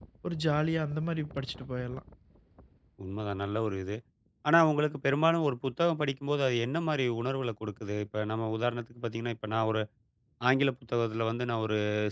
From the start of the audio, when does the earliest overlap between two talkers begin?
none

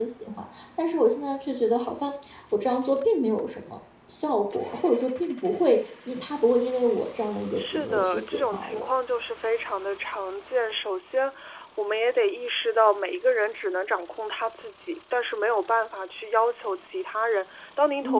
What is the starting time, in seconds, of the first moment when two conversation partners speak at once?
7.6 s

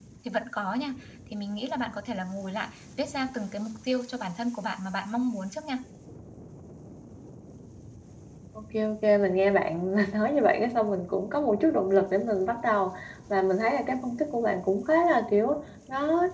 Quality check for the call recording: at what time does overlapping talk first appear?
none

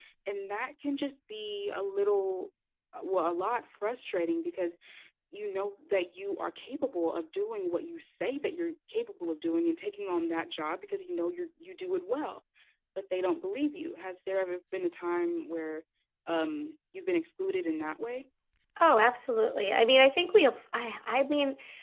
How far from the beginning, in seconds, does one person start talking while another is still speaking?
none

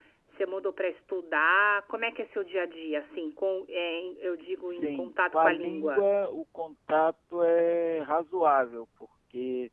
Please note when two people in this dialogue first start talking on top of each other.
4.7 s

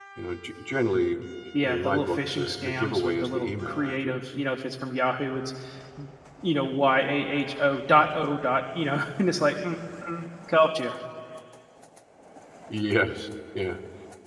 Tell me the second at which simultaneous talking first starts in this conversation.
1.6 s

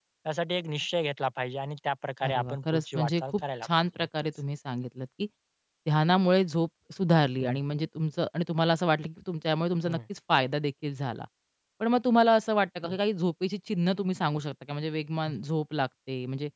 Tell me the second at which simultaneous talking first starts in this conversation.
2.2 s

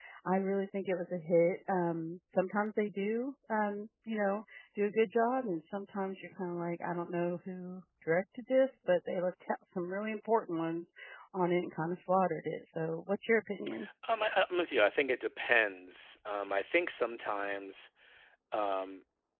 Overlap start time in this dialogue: none

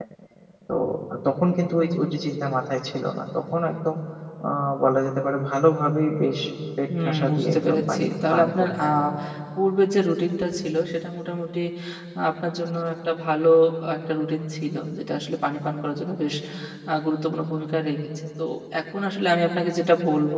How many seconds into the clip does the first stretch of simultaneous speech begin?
7.0 s

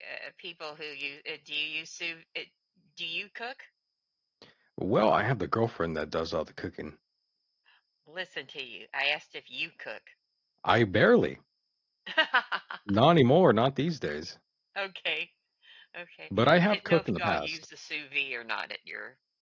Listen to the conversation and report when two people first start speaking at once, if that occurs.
16.4 s

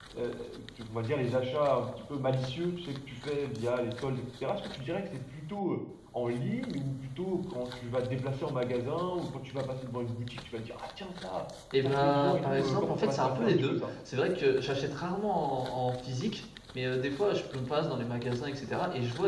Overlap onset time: 11.7 s

